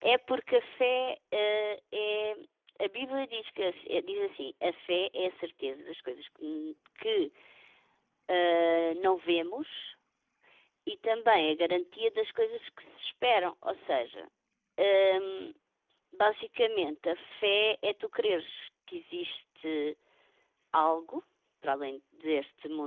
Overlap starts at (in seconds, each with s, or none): none